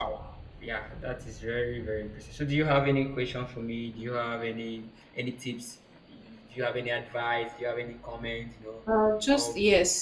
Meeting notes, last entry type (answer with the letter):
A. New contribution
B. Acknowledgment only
A